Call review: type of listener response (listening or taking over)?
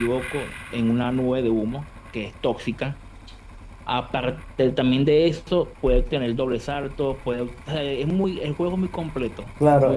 taking over